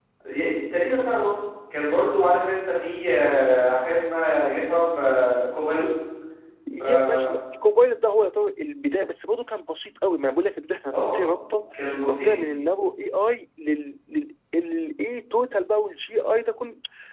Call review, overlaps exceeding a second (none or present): none